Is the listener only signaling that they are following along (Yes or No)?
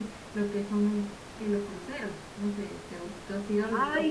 No